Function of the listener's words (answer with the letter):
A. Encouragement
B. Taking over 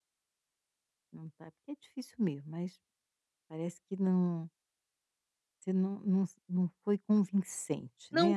B